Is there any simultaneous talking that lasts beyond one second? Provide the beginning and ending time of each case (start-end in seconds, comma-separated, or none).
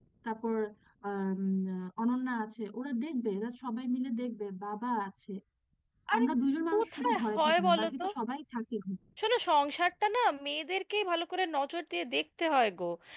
6.7-8.0